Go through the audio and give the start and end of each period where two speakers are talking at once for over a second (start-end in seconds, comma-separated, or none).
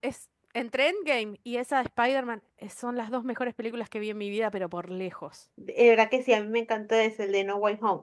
none